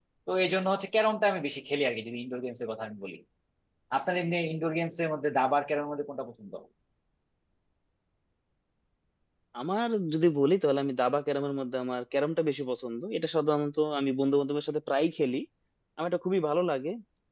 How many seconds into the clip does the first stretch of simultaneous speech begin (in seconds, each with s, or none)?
none